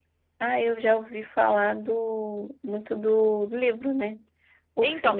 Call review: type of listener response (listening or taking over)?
taking over